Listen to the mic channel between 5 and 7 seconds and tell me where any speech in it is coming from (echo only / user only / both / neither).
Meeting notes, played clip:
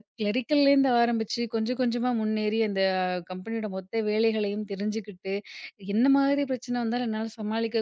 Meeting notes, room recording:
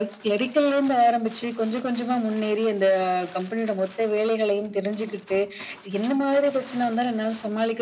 echo only